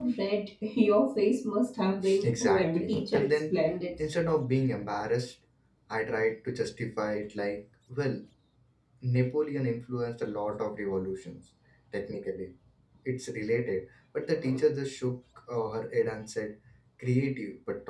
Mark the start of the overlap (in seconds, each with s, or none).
2.0 s